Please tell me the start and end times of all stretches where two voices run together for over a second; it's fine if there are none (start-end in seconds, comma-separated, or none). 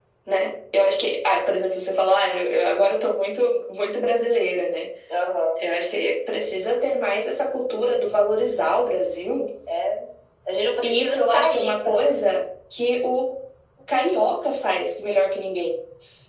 10.8-12.0